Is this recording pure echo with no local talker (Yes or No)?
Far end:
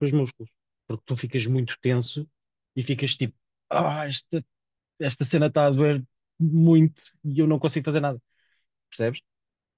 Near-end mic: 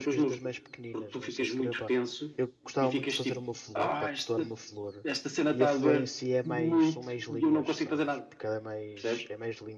No